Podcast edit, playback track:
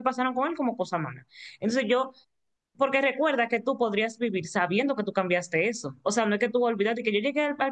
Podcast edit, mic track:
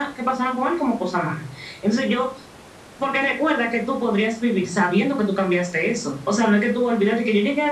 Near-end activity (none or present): none